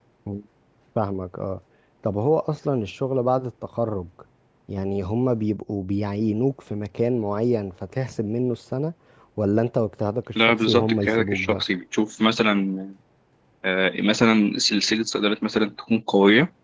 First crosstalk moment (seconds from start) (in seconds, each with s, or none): 10.4 s